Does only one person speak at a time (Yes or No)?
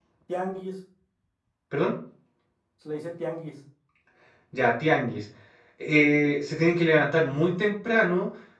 Yes